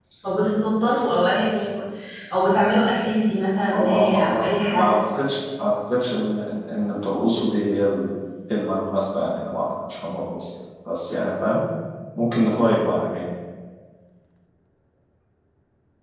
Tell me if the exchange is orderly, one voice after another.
No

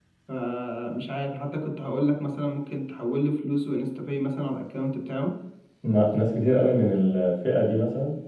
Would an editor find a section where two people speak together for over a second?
No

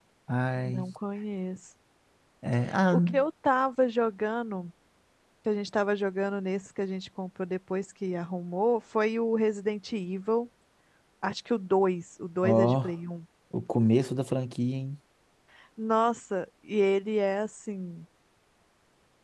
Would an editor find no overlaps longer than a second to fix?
Yes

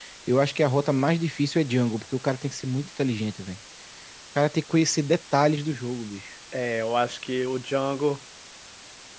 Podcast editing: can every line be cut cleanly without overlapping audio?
Yes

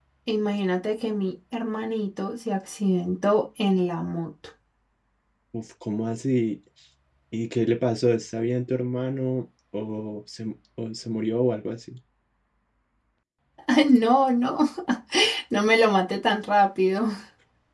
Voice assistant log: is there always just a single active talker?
Yes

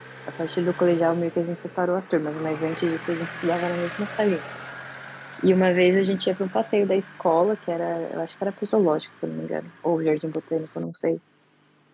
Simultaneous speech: No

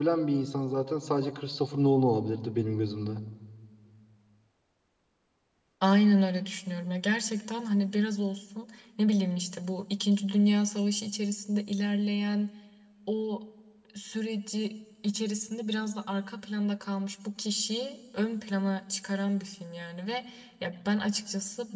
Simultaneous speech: No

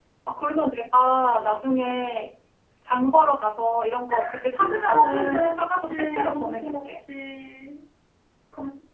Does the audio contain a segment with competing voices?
Yes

